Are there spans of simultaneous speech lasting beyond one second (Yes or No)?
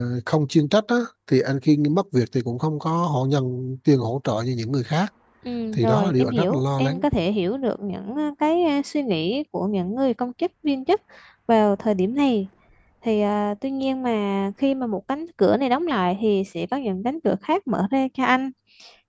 Yes